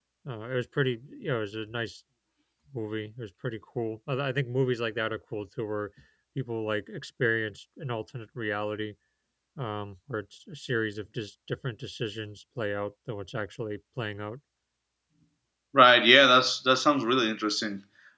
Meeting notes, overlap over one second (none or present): none